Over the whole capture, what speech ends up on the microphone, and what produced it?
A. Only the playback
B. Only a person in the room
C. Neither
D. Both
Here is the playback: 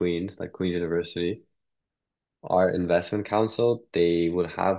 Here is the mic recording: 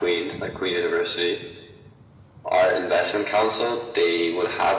A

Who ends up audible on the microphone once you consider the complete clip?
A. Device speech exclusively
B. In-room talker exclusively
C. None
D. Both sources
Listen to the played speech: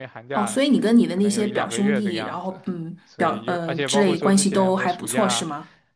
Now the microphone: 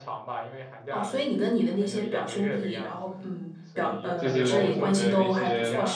D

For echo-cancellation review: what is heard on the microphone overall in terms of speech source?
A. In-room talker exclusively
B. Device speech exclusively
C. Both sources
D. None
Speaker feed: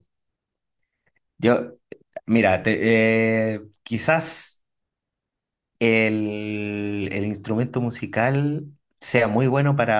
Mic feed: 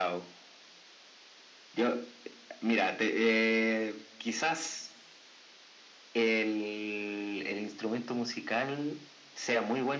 B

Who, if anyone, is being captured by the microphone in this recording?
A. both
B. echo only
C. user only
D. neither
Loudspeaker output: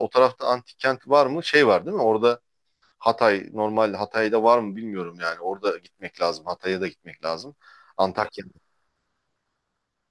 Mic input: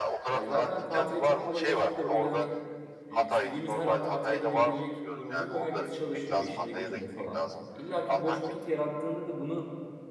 A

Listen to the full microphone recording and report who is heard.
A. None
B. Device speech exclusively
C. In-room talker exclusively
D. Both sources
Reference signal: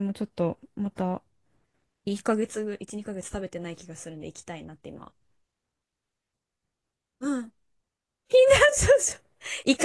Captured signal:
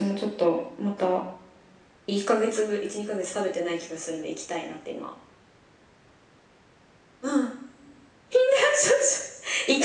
B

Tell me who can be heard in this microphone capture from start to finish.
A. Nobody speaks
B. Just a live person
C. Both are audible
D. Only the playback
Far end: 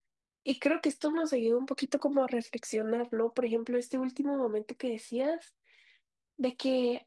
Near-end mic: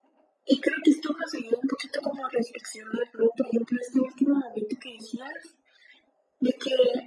D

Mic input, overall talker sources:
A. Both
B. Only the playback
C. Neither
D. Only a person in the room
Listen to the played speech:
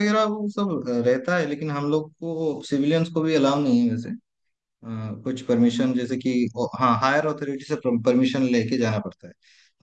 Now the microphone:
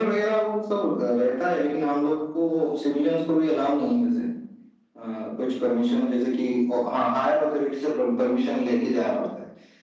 B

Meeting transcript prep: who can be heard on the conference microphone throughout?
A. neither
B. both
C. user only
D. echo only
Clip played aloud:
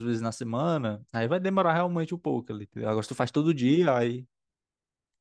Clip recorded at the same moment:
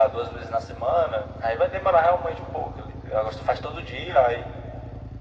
D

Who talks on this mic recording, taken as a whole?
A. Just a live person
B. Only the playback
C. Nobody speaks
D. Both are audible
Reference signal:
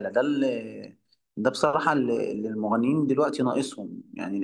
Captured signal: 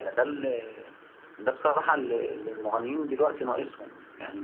B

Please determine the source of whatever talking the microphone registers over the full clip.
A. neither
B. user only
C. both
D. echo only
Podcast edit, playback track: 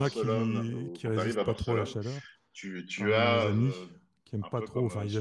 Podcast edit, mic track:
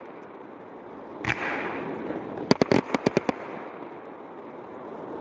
A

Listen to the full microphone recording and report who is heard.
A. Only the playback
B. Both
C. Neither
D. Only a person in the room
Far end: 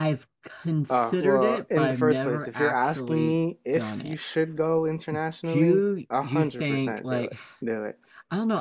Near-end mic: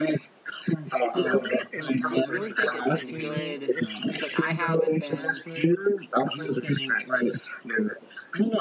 B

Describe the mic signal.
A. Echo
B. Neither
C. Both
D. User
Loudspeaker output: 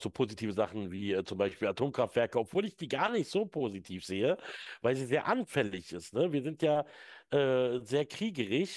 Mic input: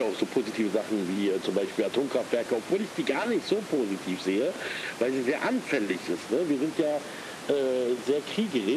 A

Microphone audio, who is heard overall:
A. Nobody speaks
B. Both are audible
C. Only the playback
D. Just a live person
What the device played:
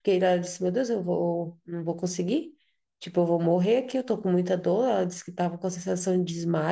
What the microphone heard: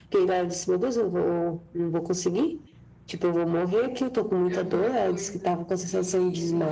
B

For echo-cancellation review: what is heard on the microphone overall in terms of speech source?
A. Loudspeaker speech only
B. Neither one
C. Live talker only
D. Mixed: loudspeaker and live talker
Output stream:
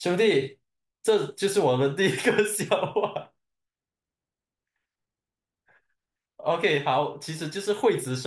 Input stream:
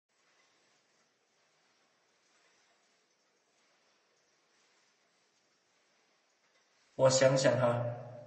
C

